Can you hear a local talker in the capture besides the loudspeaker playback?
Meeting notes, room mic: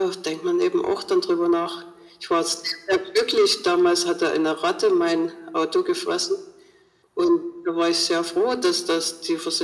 No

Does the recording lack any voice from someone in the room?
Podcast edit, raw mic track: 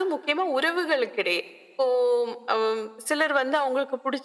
Yes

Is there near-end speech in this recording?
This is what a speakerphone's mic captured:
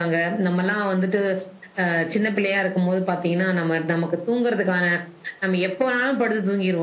No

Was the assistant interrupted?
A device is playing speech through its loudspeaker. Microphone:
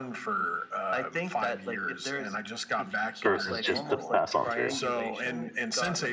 Yes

